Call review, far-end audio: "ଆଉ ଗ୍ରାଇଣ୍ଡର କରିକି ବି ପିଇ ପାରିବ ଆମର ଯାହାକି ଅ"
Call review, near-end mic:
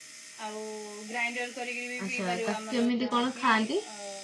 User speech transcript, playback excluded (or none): ଆଚ୍ଛା ତାକୁ କେମିତି କଣ ଖାଆନ୍ତି?